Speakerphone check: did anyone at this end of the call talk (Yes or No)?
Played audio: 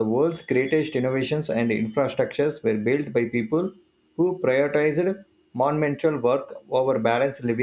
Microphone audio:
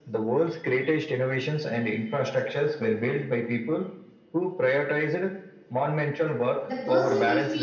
Yes